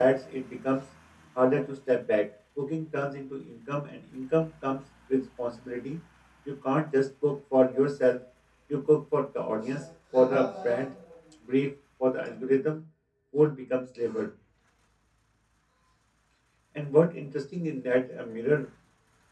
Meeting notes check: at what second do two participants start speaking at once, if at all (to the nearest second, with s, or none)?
none